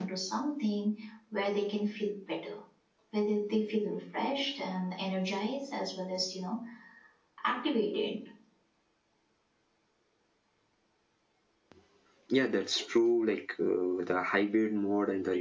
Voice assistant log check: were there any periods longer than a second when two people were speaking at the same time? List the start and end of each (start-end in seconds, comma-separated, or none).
none